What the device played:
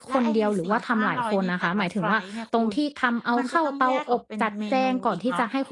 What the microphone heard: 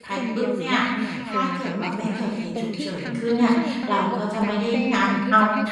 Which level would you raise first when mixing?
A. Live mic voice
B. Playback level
B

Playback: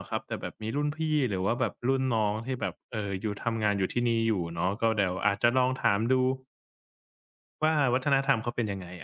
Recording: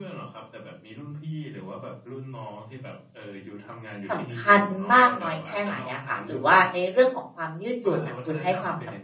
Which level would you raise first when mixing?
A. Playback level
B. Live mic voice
A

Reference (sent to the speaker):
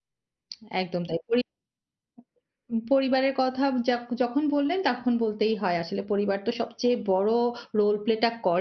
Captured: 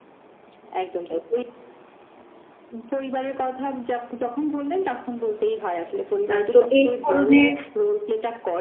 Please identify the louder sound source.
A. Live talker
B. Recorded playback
A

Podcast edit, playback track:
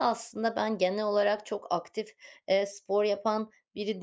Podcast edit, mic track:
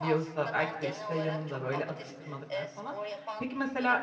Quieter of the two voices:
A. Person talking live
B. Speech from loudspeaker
B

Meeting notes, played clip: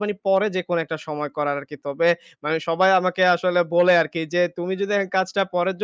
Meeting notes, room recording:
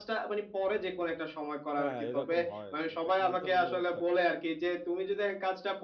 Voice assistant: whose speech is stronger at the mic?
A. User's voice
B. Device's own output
B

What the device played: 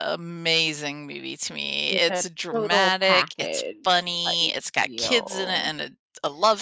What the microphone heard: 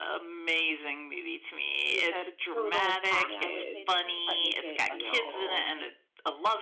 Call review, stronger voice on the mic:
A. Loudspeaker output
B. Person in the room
A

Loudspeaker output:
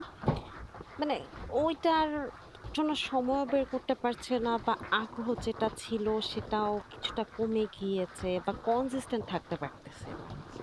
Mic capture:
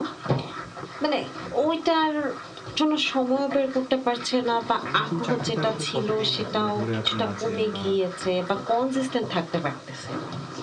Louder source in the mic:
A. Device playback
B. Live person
A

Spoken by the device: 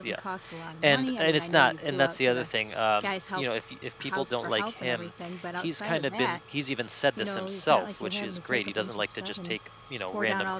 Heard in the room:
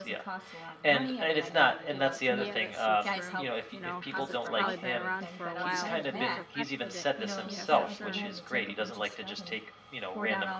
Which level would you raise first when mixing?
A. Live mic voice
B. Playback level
A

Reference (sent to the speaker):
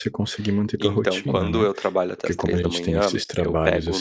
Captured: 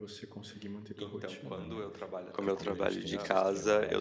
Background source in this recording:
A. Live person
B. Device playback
B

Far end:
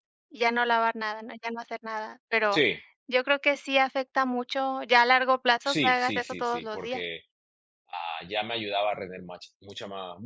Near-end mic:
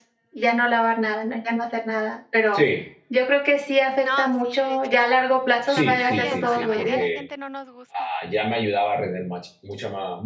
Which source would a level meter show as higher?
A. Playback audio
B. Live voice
A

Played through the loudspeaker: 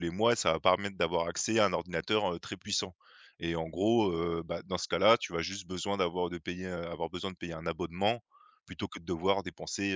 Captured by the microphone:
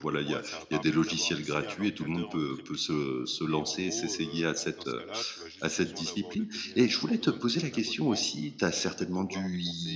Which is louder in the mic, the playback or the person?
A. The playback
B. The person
B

